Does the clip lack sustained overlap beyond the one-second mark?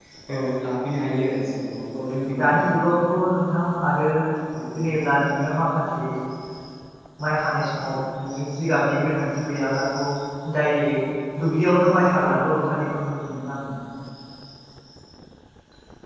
Yes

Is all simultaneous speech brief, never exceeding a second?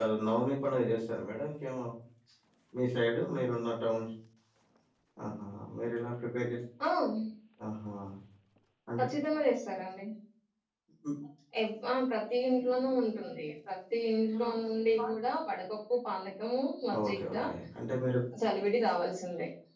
Yes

